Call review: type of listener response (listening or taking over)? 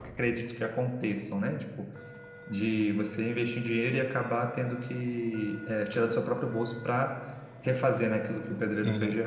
taking over